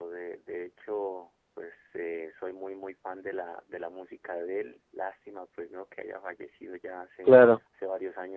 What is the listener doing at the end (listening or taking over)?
listening